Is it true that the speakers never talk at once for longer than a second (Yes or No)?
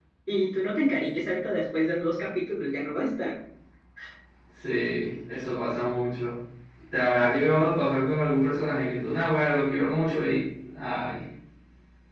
Yes